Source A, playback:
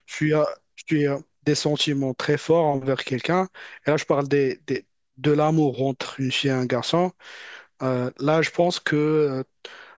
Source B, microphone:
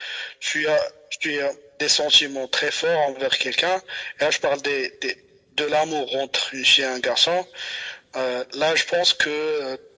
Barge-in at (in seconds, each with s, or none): none